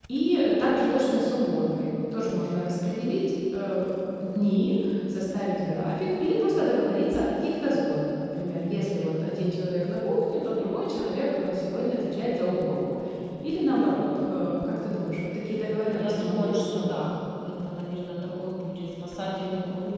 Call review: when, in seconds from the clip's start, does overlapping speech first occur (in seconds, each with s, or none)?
15.9 s